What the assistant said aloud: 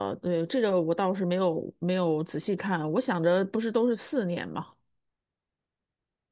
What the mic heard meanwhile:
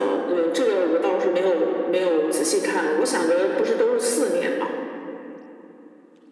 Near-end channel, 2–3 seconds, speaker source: echo only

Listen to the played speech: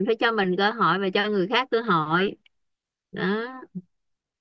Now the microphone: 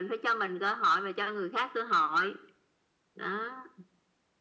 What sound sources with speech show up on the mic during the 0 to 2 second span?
echo only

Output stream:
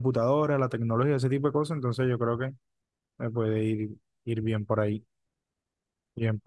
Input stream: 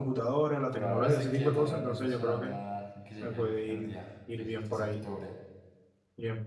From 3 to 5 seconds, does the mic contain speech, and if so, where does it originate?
both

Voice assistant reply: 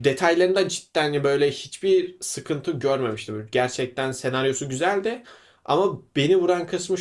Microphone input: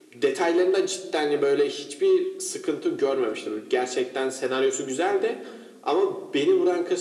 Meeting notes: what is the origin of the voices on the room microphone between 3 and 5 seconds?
echo only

